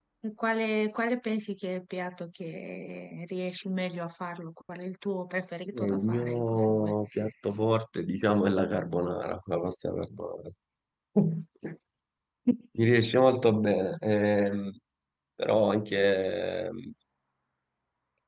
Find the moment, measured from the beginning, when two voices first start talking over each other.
5.7 s

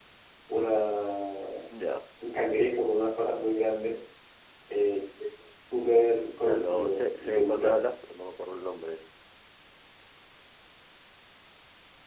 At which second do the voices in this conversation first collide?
6.4 s

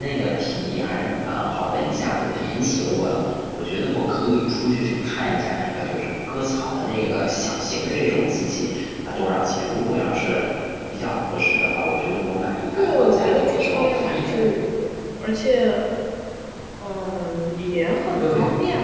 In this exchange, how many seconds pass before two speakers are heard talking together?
12.8 s

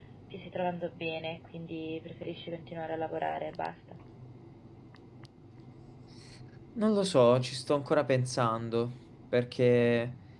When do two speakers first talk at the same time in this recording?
none

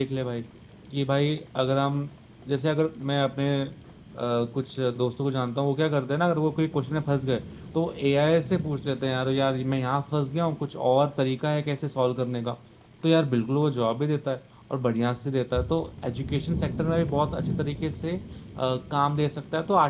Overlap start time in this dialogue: none

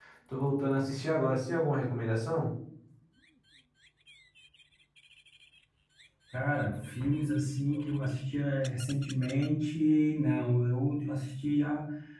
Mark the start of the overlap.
none

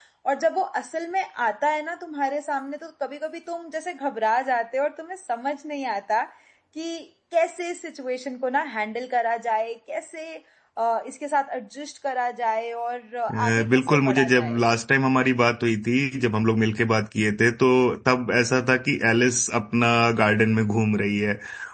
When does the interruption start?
13.3 s

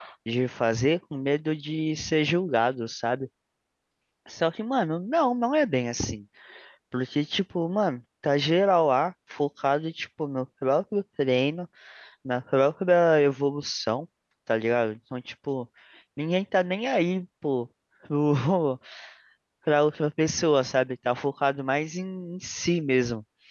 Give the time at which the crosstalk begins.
none

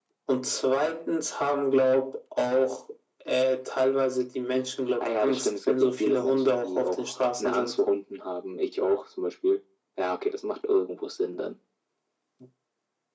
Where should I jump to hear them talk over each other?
5.0 s

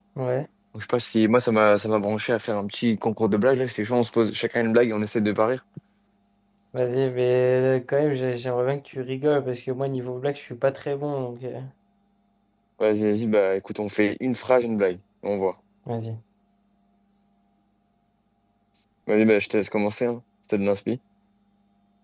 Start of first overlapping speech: none

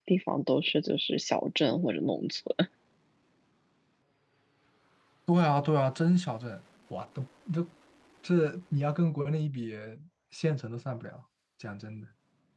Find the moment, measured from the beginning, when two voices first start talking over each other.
none

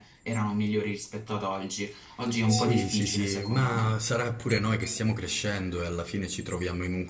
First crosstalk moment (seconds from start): 2.5 s

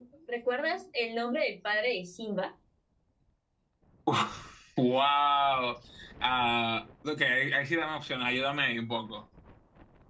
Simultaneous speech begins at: none

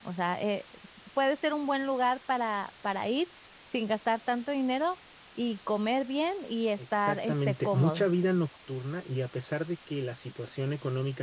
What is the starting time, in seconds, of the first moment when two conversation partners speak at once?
6.8 s

